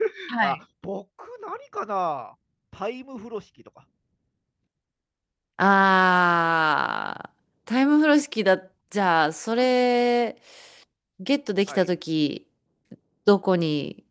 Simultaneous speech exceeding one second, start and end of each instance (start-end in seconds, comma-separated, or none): none